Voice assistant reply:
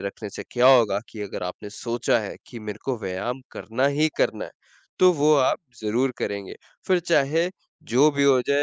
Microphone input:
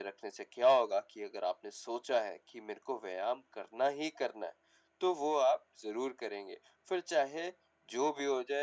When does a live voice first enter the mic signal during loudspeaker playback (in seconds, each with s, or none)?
none